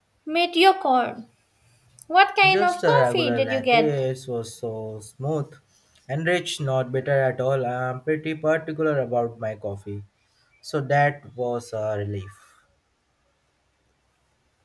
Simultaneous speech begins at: 2.5 s

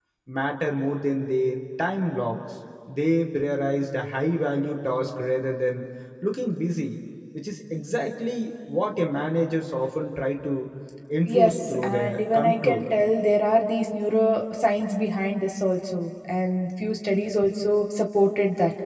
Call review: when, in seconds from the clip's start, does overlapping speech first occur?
11.3 s

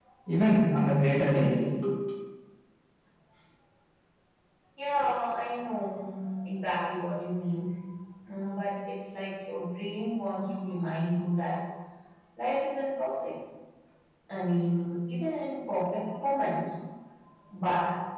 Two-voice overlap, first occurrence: none

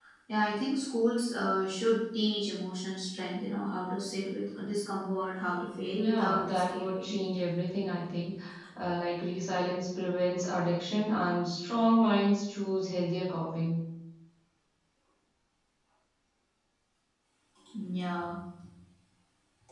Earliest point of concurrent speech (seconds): 5.9 s

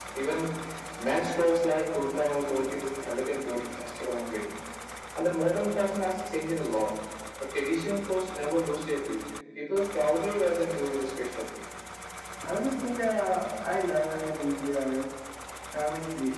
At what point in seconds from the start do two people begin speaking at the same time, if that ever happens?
none

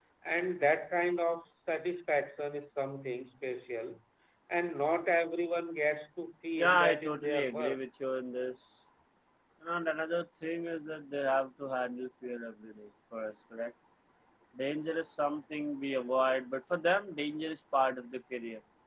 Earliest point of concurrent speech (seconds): 6.5 s

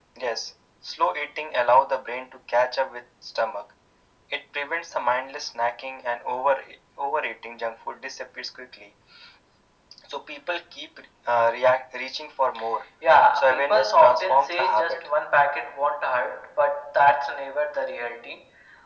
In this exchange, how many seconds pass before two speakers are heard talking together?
13.3 s

